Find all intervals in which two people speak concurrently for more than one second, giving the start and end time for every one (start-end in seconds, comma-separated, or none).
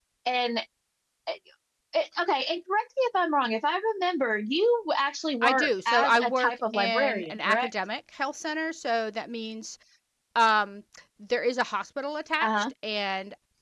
5.4-7.7